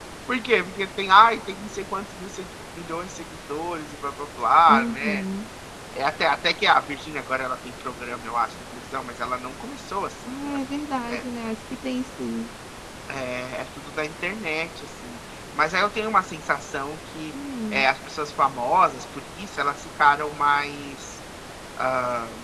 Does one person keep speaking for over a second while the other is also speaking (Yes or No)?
No